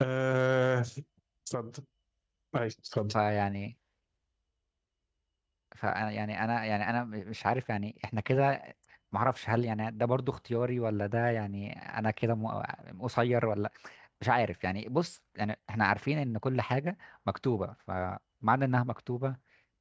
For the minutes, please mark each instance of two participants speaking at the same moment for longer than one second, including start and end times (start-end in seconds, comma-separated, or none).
none